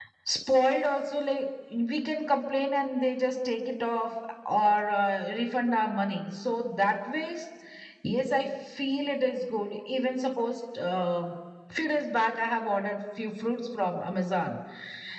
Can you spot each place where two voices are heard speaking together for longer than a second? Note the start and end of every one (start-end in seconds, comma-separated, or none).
none